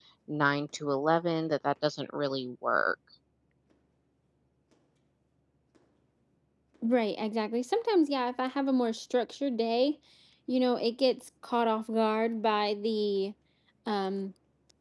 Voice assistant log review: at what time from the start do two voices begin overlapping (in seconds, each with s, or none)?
none